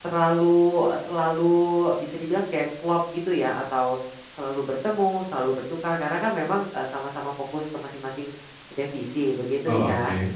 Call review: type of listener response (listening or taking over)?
taking over